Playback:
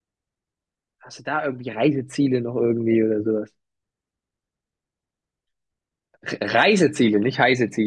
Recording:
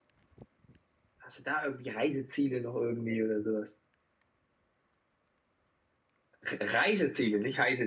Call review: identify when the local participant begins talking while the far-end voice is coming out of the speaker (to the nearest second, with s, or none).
none